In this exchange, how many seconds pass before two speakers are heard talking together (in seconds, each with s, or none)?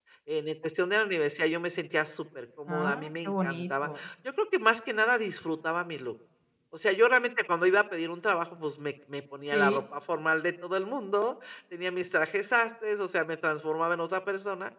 2.7 s